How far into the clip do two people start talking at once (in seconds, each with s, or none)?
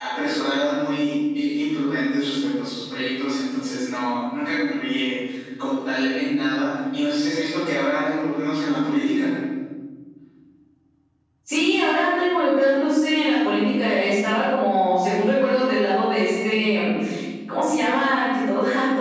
none